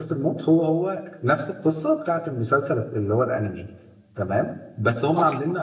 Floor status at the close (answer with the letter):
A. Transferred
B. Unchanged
B